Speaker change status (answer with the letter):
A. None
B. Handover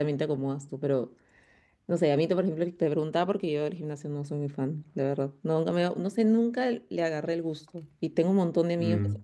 A